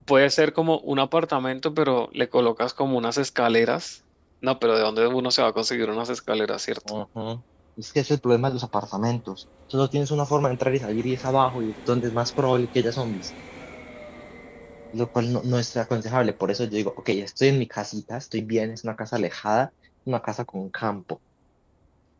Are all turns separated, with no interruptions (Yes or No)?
Yes